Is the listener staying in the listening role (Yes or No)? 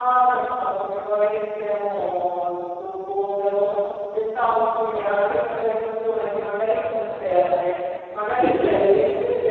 Yes